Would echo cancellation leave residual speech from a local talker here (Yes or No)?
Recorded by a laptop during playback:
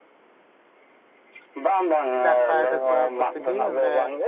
Yes